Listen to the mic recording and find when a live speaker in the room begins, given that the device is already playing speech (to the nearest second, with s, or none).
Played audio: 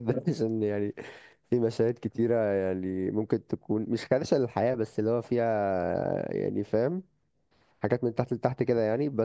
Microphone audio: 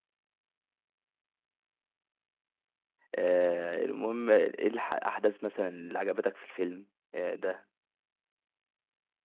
3 s